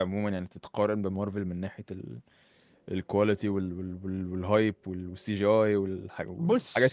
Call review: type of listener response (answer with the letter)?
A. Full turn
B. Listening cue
A